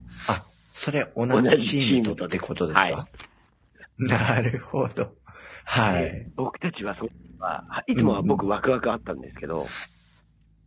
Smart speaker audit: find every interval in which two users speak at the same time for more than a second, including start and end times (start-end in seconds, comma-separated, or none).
1.3-3.0